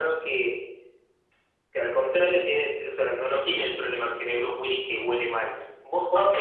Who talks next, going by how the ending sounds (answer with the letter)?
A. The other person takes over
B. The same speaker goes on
A